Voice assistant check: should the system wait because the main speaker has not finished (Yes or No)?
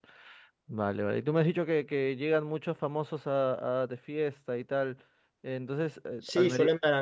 No